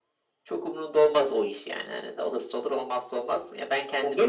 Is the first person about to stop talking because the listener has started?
Yes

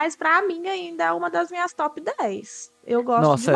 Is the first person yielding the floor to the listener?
Yes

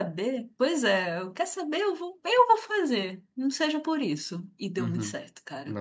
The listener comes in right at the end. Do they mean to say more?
Yes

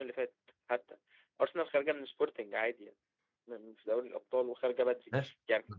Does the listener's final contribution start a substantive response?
No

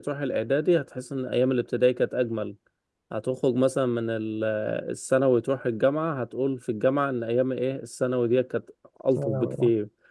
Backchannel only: Yes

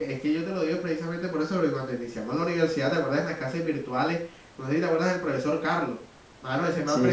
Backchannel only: Yes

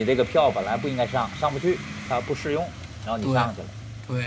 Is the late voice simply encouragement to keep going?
No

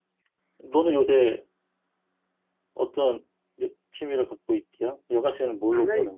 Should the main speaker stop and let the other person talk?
Yes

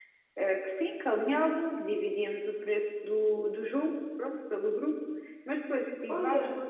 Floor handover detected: No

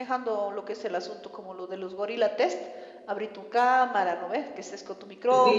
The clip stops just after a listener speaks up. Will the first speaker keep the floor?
No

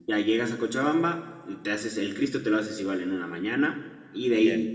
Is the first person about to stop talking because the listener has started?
No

